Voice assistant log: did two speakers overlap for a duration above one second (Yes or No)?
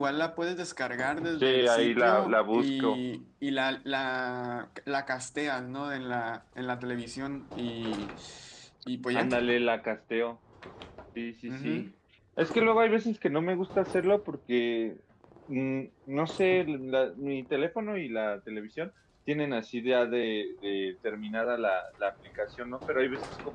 Yes